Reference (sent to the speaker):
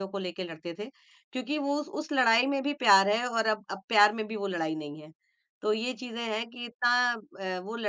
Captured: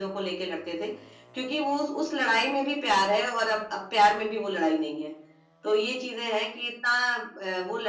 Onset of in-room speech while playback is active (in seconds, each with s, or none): none